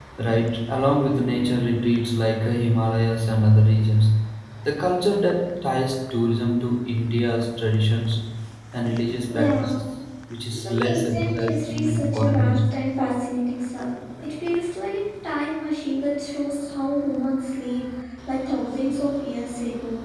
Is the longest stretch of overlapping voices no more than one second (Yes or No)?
No